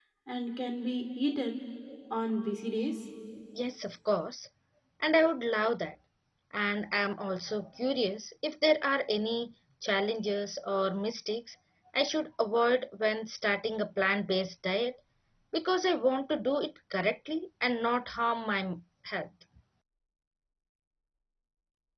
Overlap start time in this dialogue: none

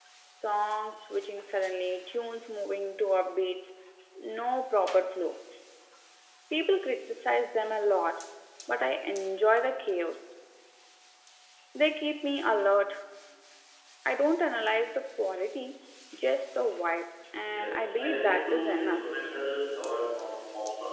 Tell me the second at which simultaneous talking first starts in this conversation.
17.5 s

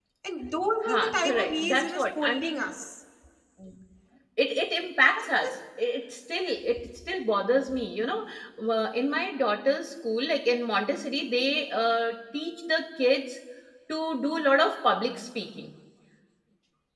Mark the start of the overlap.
0.8 s

